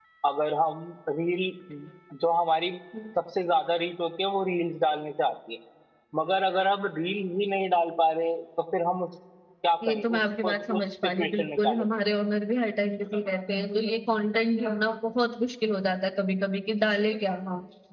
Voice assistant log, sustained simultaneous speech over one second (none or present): present